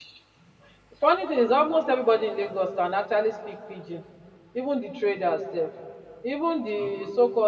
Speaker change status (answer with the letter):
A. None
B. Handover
A